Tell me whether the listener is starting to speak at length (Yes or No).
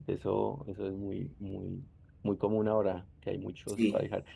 No